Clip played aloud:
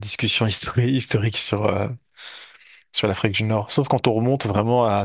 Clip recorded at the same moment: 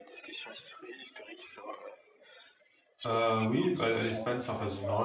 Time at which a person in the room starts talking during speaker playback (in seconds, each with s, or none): 3.1 s